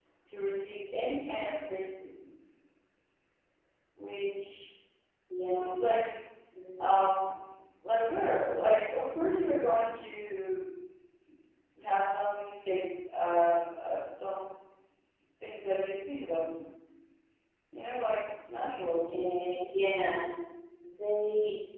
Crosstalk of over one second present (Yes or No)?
No